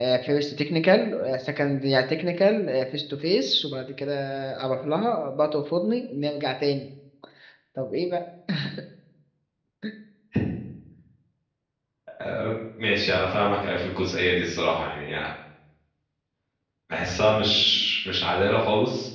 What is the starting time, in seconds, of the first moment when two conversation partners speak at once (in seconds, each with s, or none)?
none